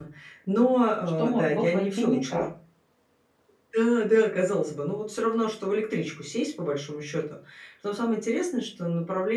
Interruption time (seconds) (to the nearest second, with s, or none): 1 s